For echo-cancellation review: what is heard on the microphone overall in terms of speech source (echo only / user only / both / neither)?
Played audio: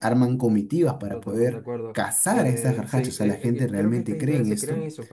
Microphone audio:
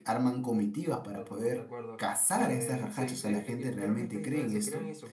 echo only